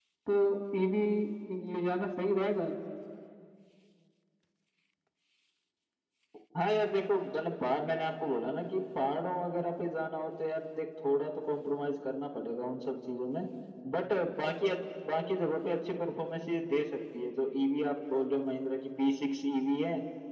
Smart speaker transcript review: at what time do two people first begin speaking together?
none

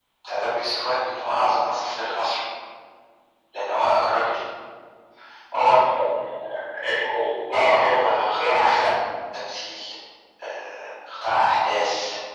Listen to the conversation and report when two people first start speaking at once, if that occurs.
7.5 s

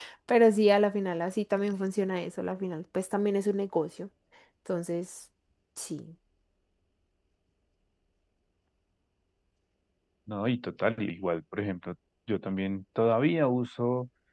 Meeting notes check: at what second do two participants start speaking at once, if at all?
none

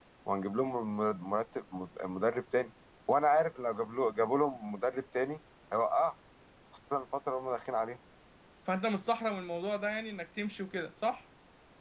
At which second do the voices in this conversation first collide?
none

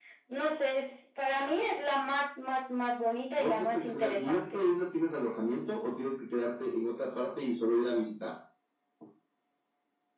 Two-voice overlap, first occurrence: 3.4 s

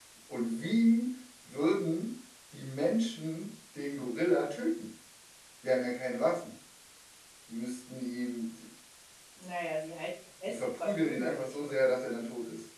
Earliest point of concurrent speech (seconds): 10.5 s

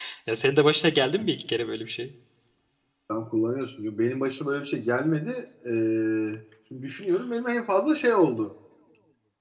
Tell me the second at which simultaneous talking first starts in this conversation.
none

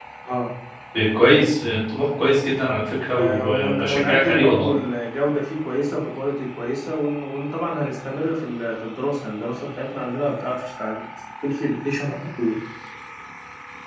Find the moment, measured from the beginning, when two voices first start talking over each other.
3.1 s

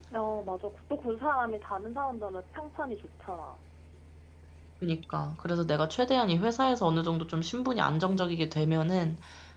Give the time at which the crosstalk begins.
none

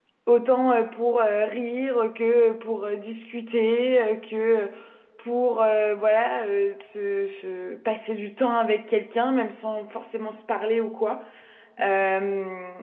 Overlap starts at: none

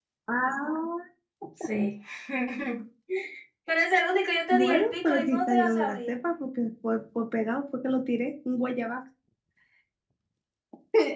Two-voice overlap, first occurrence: 4.5 s

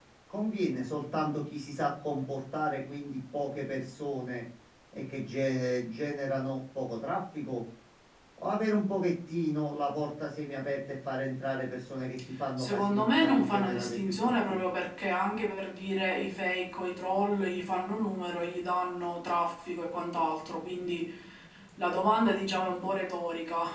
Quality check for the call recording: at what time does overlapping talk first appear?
12.6 s

